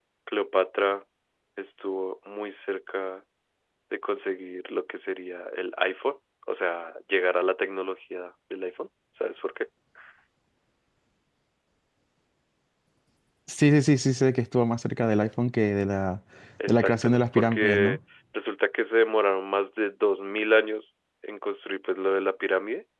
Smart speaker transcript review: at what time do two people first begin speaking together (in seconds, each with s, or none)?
16.7 s